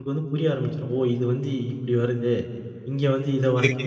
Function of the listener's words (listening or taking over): taking over